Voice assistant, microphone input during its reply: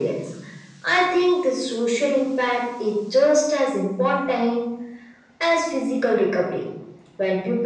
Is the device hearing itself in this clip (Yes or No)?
Yes